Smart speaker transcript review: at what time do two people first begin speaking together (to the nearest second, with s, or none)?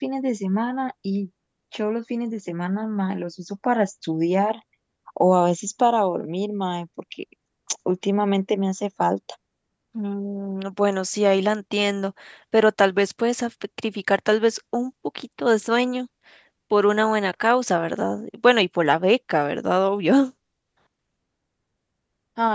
none